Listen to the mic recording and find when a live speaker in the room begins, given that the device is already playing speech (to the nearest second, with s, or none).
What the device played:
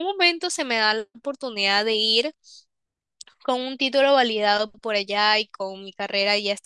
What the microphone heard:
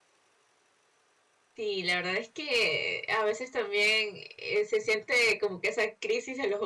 2 s